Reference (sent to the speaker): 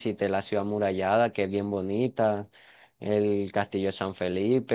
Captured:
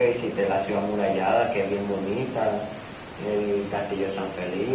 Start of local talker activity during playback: none

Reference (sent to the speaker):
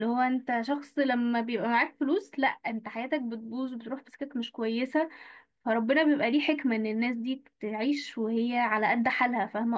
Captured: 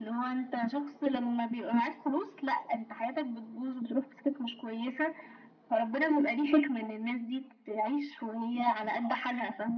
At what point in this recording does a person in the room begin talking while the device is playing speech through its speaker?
none

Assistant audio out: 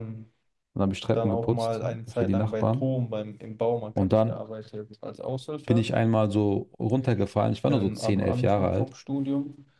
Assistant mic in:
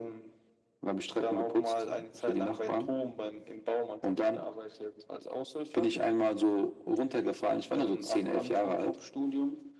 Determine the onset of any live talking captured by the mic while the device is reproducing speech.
none

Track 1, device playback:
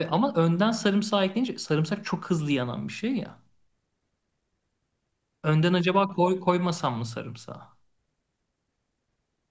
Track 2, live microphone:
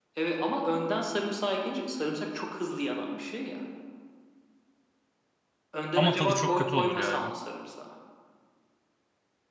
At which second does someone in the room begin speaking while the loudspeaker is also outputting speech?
5.9 s

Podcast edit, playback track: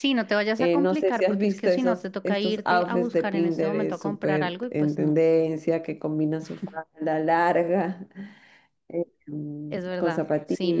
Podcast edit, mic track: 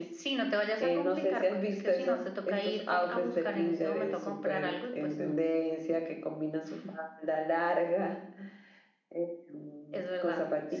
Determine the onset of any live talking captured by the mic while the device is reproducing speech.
none

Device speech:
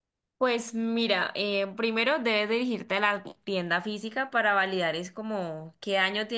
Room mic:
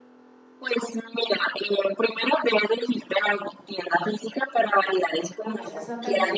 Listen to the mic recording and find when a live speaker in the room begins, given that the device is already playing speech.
5.4 s

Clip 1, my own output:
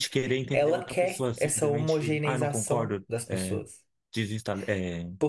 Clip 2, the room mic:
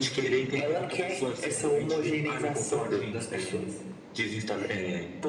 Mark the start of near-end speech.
2.9 s

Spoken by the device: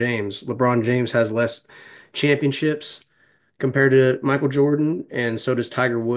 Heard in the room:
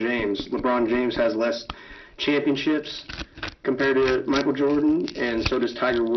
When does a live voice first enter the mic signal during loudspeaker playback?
none

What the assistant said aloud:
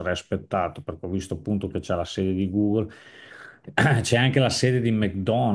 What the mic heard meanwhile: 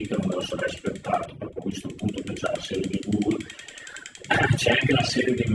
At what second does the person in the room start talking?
none

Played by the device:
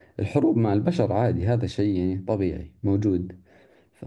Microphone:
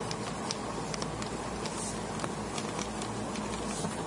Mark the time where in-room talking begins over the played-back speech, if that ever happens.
none

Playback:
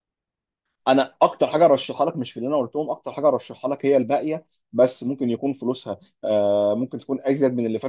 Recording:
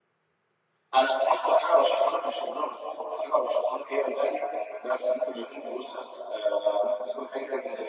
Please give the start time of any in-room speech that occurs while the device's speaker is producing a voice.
none

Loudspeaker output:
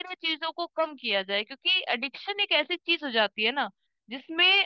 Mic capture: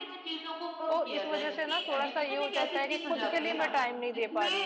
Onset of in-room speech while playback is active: 0.9 s

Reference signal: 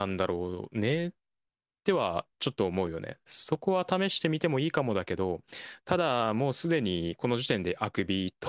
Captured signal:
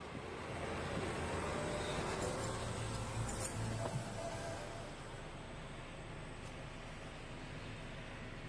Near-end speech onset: none

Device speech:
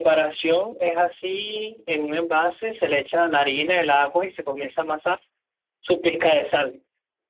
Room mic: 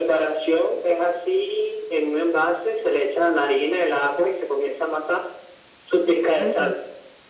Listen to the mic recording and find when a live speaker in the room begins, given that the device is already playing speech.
6.4 s

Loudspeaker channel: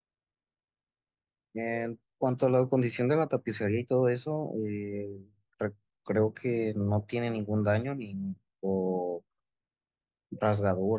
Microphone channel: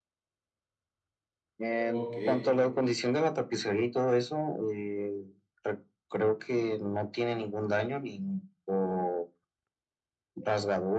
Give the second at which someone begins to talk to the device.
1.8 s

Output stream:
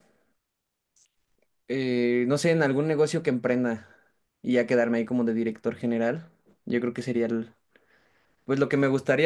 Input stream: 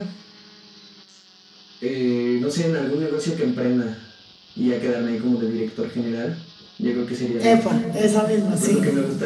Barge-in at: 7.4 s

